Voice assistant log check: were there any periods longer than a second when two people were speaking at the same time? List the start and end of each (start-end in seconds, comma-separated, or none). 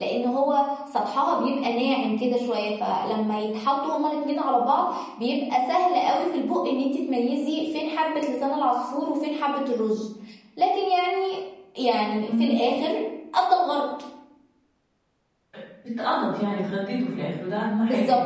none